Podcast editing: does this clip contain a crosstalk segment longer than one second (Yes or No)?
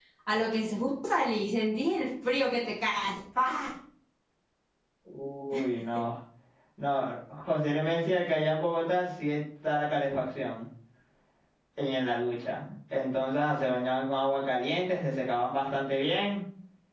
No